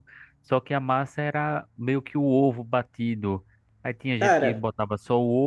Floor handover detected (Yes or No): No